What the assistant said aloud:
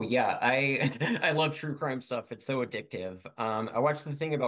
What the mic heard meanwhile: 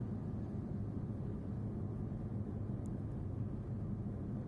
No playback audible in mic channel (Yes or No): Yes